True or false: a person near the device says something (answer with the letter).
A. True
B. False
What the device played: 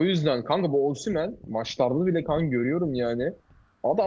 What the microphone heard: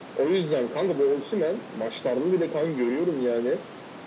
B